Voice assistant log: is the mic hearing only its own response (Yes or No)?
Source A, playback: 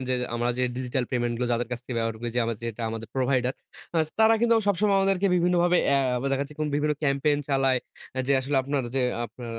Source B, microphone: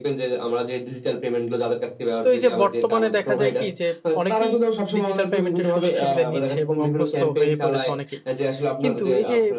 No